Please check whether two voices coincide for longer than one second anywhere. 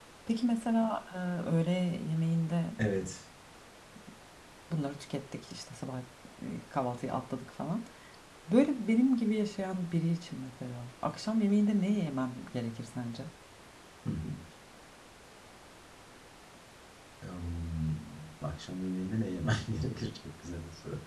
No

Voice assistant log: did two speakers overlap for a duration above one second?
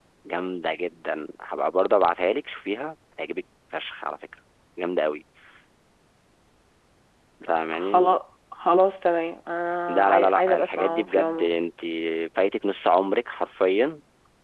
Yes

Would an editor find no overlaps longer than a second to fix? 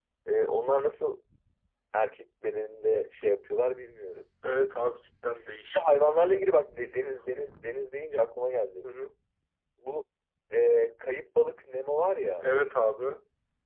Yes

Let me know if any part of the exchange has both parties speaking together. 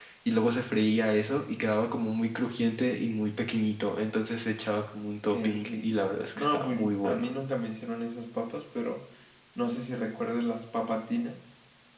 Yes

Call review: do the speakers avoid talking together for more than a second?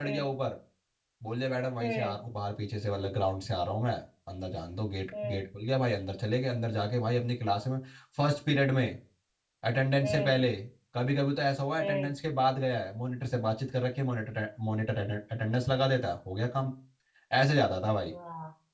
Yes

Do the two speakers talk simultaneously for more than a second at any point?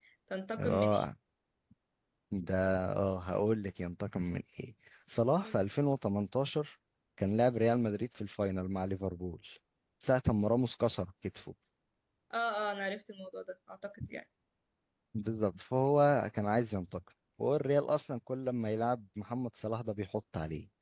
No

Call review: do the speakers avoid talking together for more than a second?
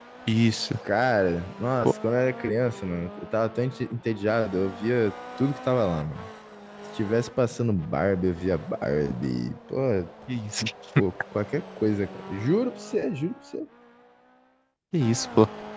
Yes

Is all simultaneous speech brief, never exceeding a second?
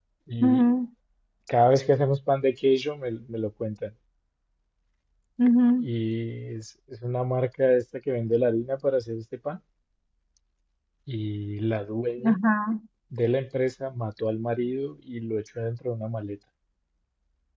Yes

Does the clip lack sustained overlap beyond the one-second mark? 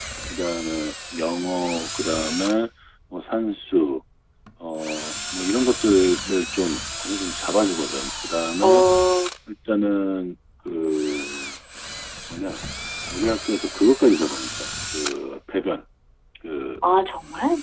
Yes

